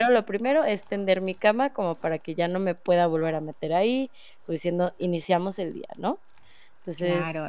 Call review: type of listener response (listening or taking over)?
taking over